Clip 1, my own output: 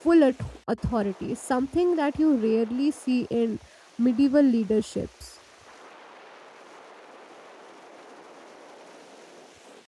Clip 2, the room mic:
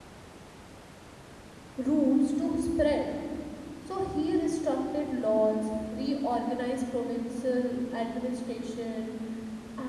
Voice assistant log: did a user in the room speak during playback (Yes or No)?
Yes